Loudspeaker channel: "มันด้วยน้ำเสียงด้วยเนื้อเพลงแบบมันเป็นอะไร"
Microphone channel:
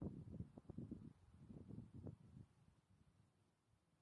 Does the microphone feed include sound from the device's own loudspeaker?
No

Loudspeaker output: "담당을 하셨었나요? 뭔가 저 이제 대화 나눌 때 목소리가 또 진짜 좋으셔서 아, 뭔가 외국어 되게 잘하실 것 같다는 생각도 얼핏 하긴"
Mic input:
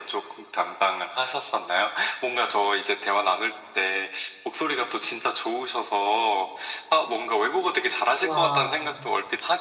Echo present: Yes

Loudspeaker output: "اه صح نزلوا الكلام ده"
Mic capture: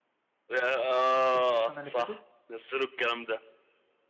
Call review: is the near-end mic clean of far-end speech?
No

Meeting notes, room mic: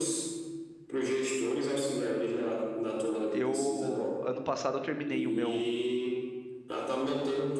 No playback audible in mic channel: No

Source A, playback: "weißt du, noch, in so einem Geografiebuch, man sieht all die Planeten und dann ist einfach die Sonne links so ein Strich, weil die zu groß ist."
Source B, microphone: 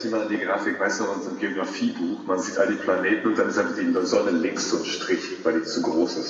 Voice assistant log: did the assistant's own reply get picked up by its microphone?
Yes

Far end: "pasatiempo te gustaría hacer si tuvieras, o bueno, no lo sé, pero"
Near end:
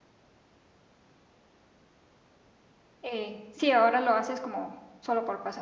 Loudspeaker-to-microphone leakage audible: No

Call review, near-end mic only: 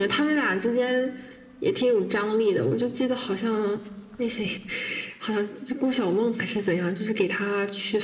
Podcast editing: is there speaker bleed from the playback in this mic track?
Yes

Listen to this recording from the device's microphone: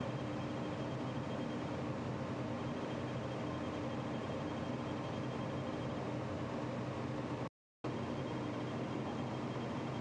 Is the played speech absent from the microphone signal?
Yes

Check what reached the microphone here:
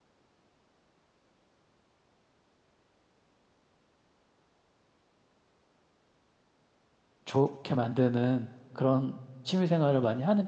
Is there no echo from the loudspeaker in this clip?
Yes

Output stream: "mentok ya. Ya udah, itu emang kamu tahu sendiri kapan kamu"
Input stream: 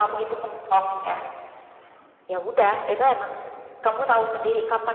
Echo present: Yes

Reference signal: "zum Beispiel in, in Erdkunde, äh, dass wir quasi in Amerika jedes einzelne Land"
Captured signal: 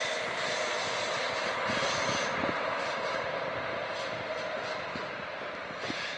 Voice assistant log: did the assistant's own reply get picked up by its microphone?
No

